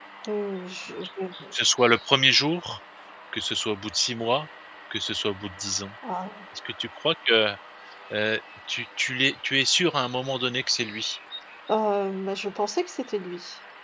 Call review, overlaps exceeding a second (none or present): none